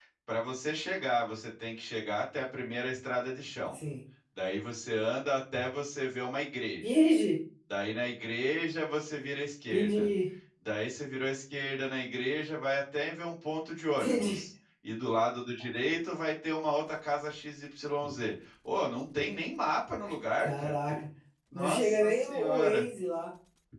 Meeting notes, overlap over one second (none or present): present